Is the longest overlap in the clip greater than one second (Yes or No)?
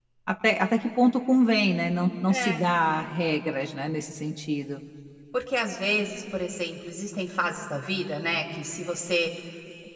No